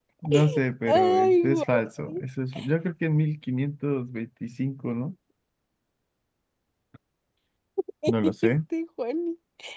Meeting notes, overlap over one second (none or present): present